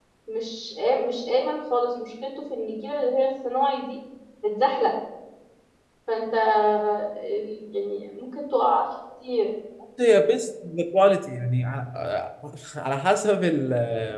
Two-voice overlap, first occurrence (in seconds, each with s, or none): none